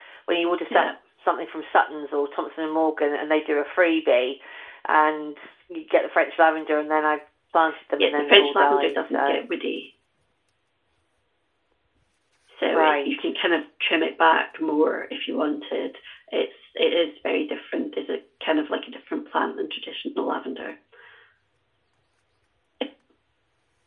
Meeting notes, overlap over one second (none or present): present